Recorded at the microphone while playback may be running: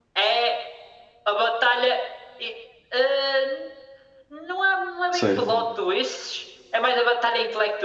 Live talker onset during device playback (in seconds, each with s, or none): 5.1 s